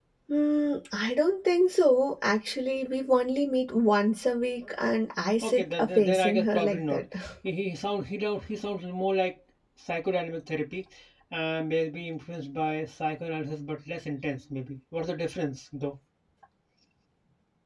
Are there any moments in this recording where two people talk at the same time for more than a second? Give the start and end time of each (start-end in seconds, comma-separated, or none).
5.4-7.0